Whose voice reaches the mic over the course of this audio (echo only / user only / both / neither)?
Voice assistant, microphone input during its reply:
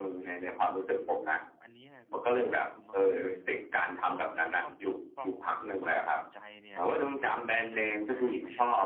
both